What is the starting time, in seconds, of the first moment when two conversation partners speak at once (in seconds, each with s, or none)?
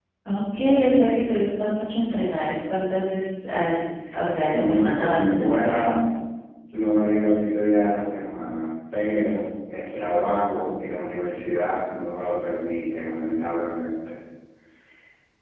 4.5 s